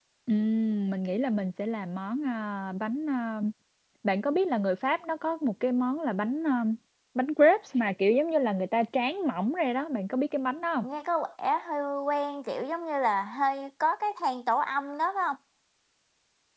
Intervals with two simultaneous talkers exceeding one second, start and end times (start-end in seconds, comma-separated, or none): none